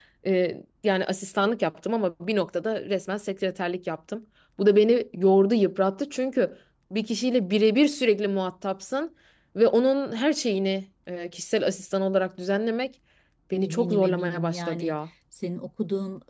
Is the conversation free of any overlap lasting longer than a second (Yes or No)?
No